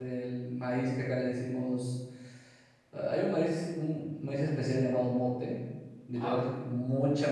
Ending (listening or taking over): listening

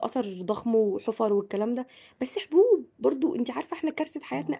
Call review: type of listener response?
listening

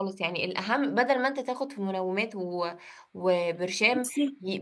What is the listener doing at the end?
listening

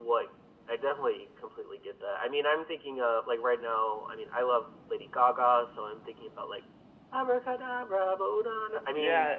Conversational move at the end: taking over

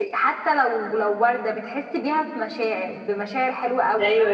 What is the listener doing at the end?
taking over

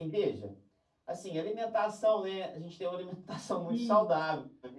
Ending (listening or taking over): listening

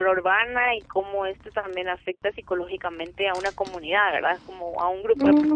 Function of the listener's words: taking over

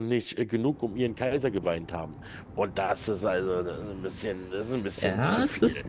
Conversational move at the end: taking over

